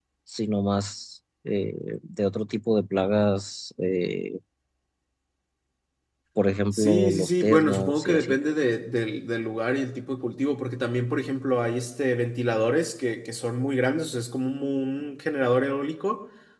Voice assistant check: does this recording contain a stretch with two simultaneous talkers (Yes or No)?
Yes